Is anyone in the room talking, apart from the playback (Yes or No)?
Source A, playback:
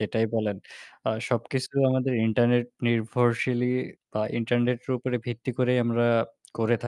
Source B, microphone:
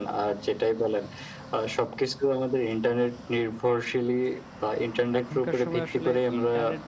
Yes